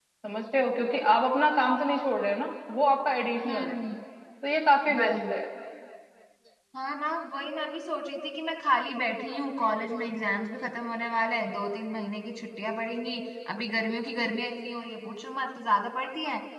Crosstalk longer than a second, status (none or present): none